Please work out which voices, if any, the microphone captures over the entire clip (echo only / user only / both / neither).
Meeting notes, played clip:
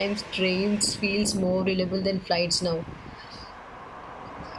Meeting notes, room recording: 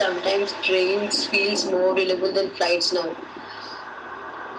echo only